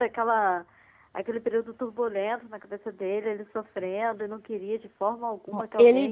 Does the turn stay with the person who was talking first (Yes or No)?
No